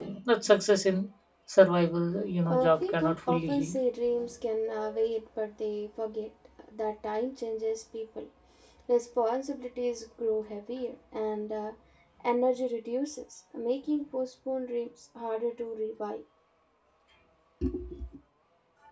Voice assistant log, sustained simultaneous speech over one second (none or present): present